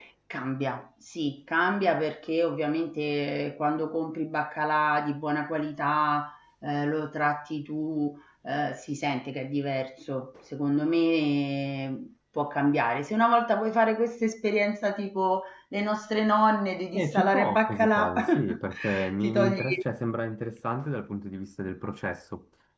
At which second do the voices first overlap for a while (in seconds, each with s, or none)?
16.9 s